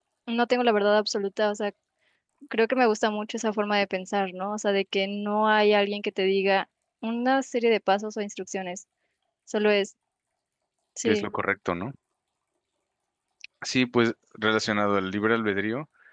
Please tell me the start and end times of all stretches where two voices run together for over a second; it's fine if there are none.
none

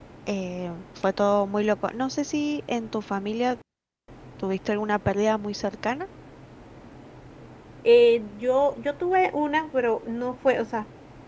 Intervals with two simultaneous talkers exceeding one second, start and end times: none

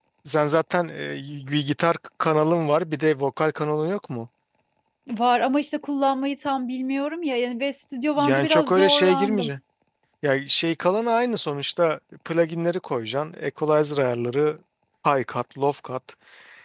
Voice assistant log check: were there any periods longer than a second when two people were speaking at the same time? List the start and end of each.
8.2-9.5

